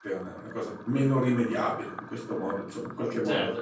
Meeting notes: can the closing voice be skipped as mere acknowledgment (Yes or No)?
No